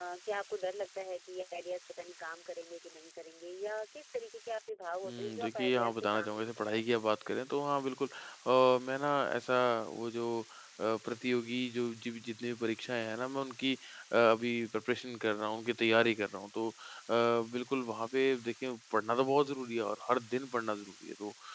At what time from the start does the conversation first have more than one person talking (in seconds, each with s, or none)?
5.0 s